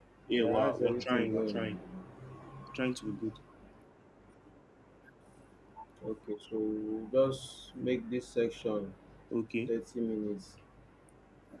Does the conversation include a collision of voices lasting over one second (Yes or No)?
Yes